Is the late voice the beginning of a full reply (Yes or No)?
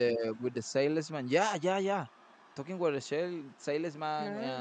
No